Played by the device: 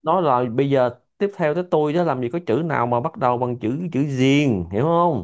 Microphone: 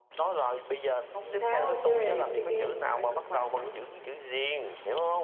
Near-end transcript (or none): không tháo chơi chơi game mà phải công bằng chứ